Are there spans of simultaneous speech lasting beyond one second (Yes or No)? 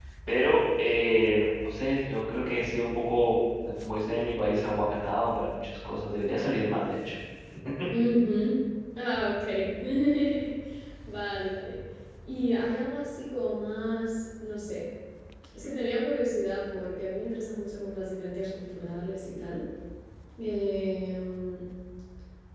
No